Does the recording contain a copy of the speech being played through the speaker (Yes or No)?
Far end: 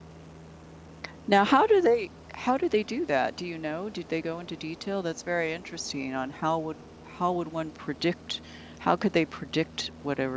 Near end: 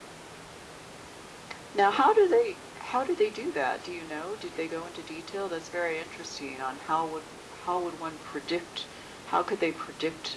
Yes